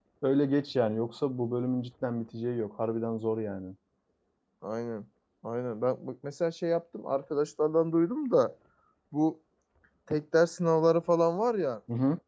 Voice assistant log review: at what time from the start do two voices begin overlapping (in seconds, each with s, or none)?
none